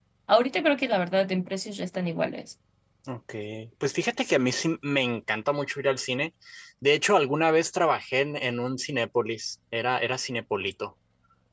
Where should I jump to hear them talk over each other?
none

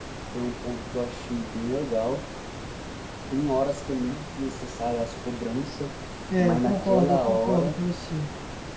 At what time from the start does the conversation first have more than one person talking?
6.4 s

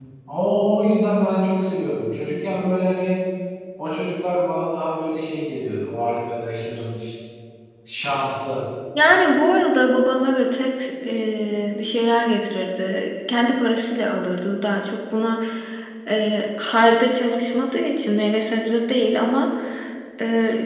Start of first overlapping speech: none

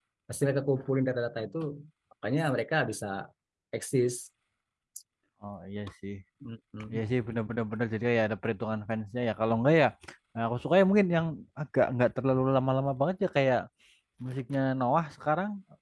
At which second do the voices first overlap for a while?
none

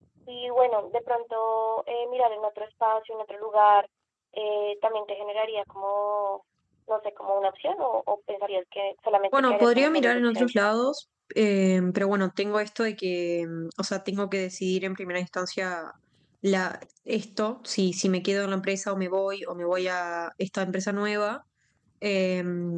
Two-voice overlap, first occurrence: 9.3 s

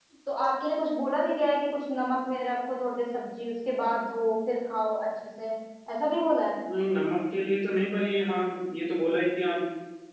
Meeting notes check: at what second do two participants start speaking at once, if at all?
none

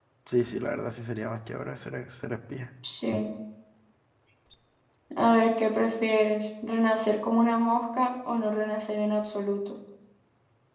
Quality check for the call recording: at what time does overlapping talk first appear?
none

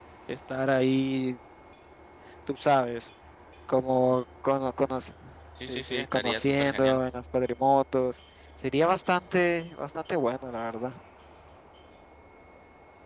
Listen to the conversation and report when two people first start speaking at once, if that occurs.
5.7 s

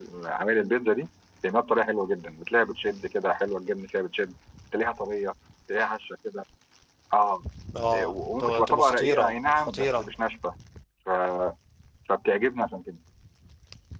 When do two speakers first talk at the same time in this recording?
7.9 s

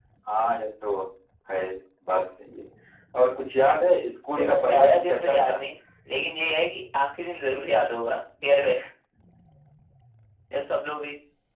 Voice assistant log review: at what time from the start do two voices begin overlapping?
4.3 s

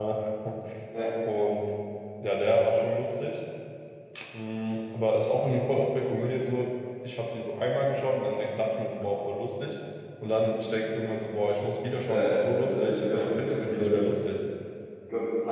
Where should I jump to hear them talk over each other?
12.1 s

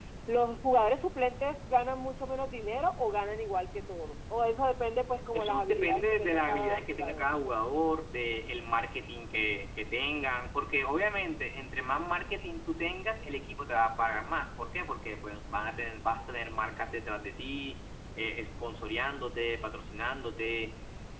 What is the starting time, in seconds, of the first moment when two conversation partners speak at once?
5.3 s

